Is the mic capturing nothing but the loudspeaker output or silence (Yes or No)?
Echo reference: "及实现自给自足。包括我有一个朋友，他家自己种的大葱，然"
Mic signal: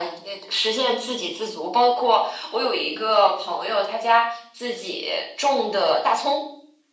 Yes